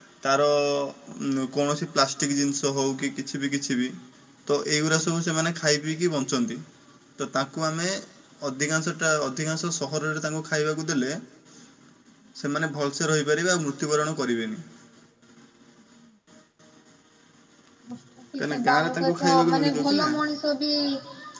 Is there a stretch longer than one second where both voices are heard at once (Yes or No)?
Yes